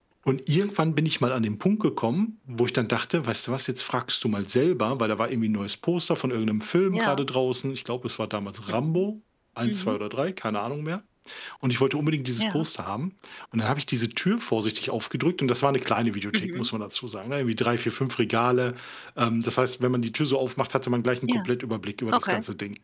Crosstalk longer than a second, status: none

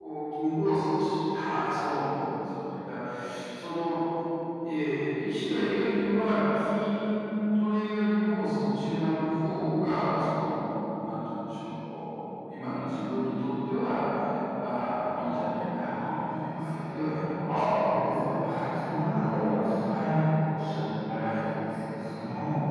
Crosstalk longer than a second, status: present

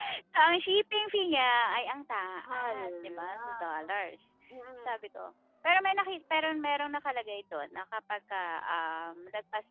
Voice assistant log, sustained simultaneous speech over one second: present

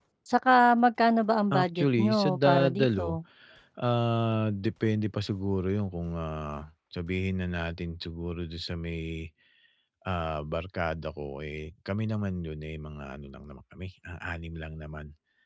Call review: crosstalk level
present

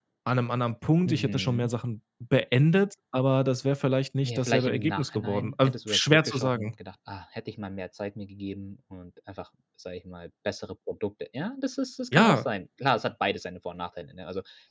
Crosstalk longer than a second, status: present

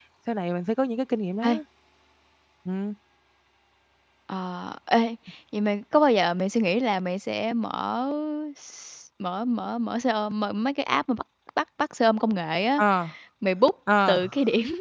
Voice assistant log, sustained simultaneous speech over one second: none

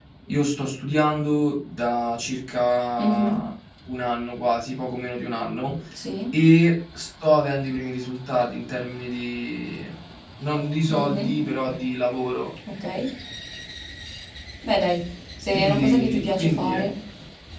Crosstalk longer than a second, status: present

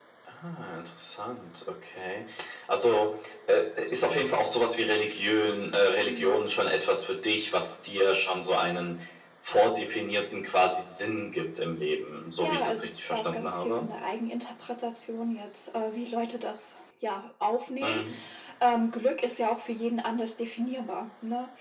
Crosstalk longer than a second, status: present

